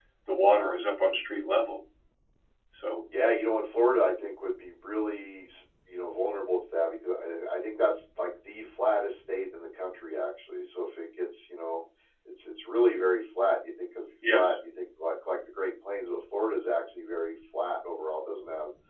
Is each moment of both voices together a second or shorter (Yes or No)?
Yes